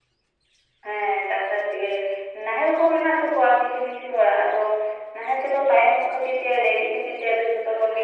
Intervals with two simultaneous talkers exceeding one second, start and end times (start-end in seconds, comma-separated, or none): none